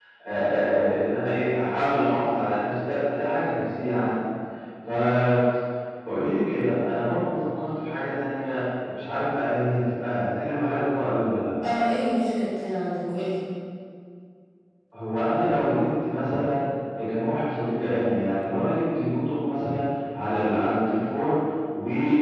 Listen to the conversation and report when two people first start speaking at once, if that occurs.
none

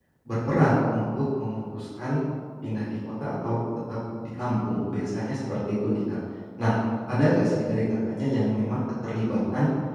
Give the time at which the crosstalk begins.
none

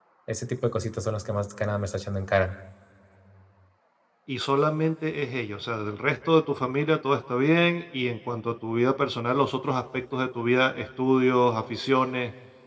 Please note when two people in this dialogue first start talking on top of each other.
none

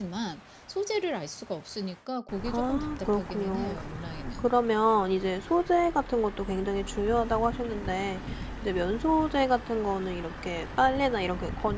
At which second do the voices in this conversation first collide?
2.5 s

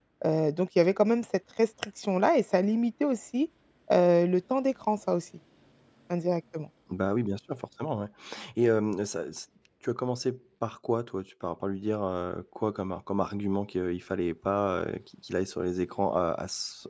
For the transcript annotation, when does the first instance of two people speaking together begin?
none

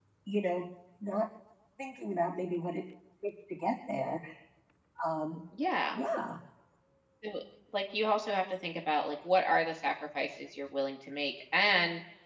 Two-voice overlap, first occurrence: none

